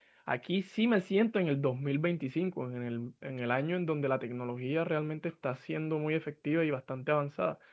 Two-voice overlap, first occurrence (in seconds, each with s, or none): none